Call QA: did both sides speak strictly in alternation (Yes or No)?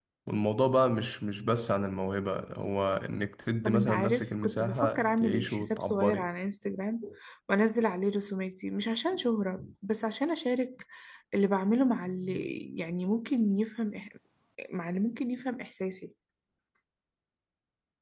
No